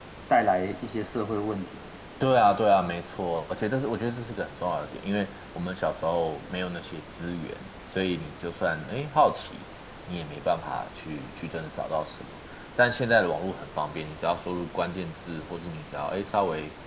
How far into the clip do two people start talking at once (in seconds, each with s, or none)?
none